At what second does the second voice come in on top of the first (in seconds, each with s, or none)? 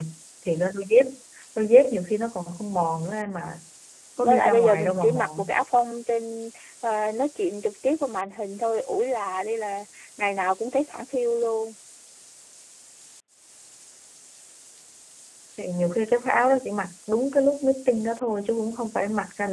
4.2 s